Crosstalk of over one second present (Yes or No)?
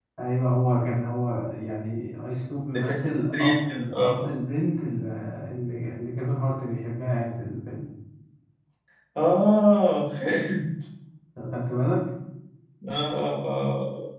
Yes